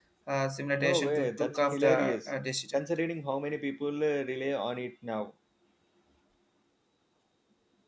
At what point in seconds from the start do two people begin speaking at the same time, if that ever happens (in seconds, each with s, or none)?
0.8 s